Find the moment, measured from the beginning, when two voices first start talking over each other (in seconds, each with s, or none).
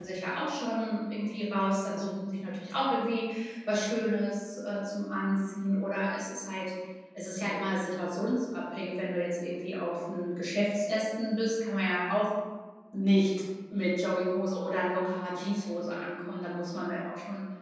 none